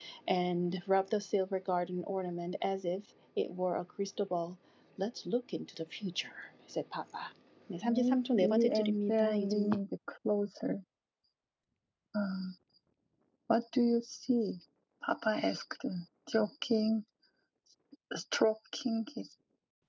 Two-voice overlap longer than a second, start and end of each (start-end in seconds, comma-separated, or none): 7.8-9.7